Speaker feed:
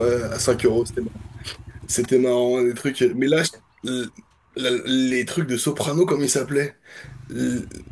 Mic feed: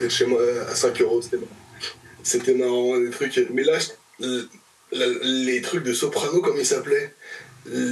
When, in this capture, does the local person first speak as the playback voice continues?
none

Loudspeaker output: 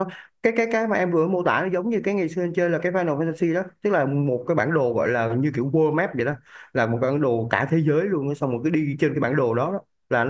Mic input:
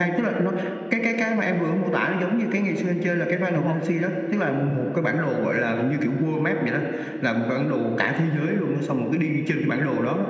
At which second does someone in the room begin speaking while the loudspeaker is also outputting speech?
3.5 s

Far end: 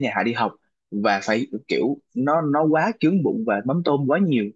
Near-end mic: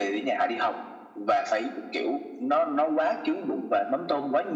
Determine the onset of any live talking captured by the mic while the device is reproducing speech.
none

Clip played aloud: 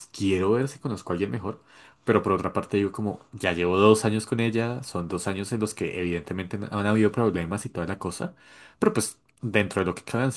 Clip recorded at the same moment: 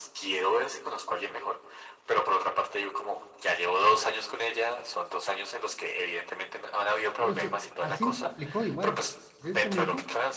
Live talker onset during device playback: 7.2 s

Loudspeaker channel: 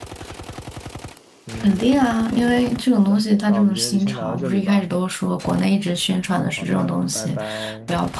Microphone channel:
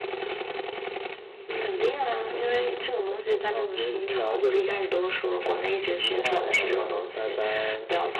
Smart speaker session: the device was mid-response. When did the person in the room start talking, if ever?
5.5 s

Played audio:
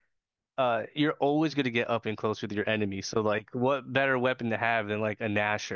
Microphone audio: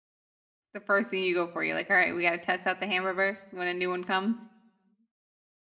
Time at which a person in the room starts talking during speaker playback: 0.7 s

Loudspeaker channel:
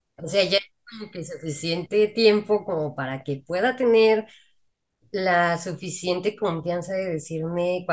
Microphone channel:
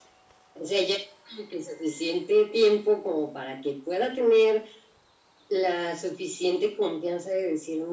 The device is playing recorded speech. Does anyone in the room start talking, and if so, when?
none

